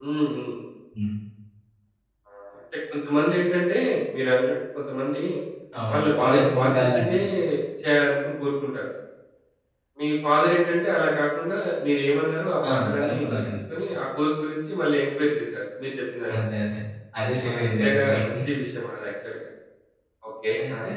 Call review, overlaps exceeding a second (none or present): present